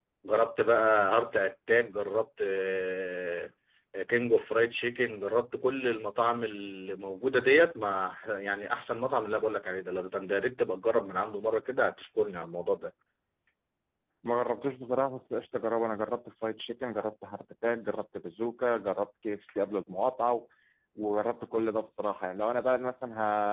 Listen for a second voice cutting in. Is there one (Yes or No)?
No